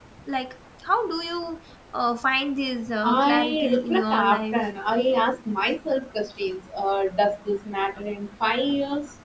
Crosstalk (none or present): present